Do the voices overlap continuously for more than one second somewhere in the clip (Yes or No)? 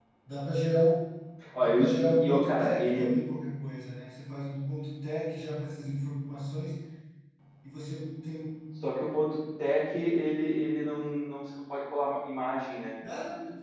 Yes